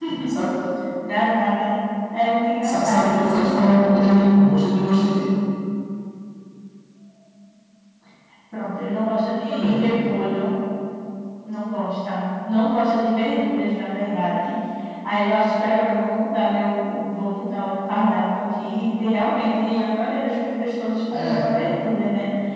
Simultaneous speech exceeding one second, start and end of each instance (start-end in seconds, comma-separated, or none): 2.6-4.4